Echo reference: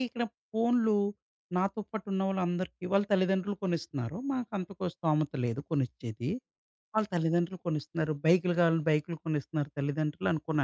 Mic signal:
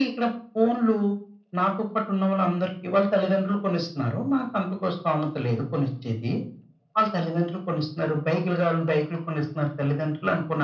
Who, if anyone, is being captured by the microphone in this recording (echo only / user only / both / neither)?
echo only